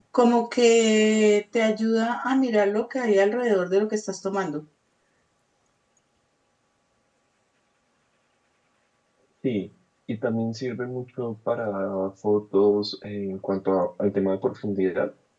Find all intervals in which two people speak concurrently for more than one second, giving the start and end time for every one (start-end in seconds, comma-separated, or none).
none